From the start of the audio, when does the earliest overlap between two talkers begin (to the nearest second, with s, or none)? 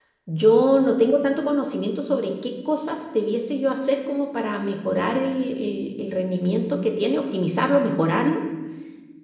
none